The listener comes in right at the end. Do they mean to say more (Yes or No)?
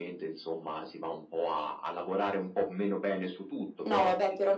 Yes